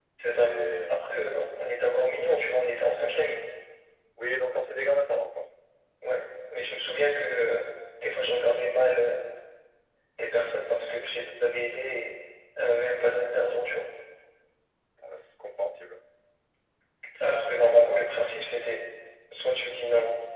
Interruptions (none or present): none